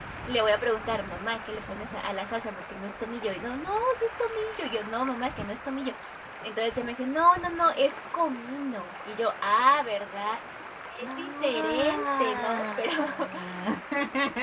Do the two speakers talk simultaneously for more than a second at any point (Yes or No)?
Yes